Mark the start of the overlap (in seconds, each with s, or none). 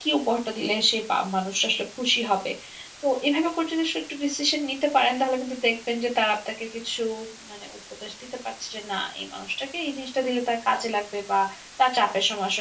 none